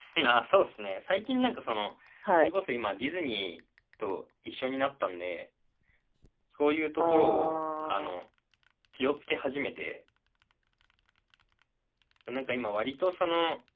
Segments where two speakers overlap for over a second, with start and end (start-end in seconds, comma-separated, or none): 7.0-8.2